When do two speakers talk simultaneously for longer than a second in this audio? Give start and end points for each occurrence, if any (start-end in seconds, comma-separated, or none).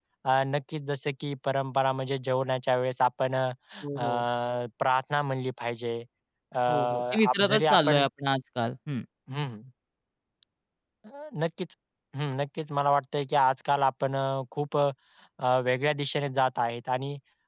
6.7-8.0